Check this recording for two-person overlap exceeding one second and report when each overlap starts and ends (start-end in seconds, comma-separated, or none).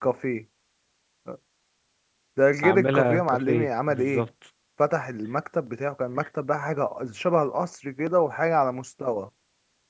2.6-4.3